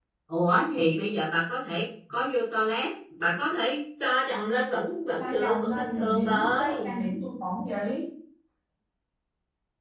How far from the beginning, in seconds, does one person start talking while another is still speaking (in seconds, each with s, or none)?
5.2 s